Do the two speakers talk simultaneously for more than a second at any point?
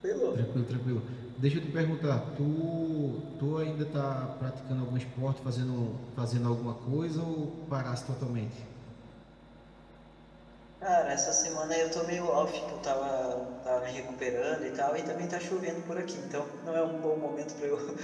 No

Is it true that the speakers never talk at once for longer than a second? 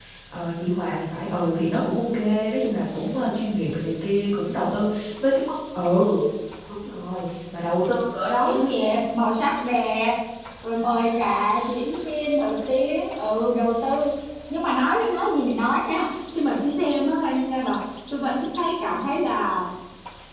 Yes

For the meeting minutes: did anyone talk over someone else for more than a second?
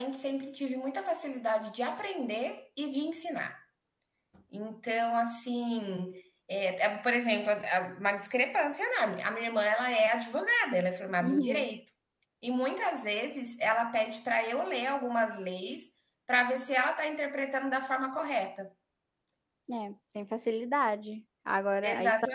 No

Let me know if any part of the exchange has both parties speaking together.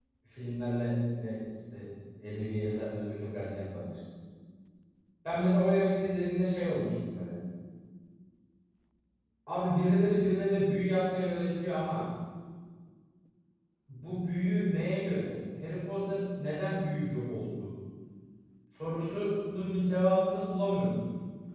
No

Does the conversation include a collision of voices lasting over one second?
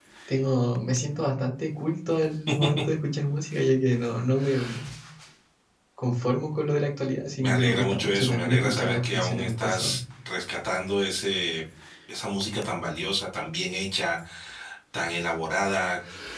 Yes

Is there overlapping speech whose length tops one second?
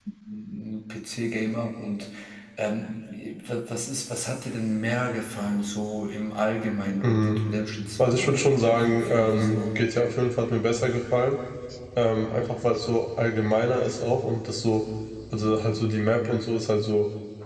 Yes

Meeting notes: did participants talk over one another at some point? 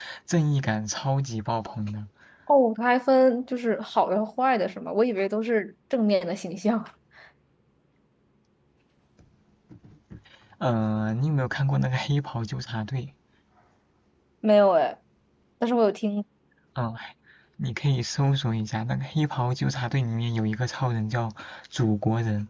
No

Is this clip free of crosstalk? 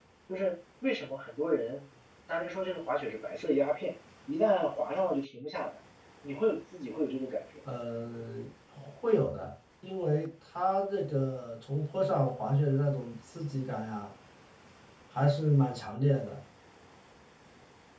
Yes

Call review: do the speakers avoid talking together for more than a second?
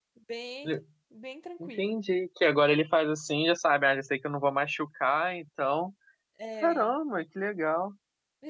Yes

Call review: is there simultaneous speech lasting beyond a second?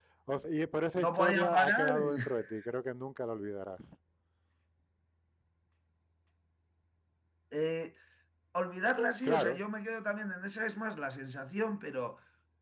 Yes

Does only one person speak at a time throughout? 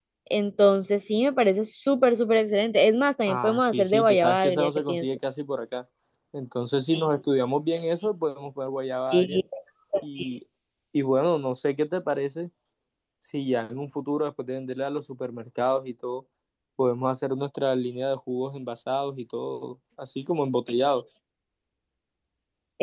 No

